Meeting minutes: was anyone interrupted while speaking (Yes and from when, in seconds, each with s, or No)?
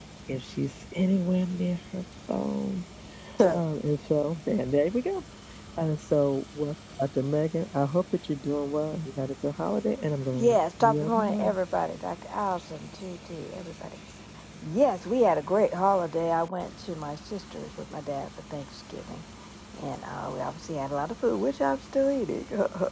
Yes, from 10.3 s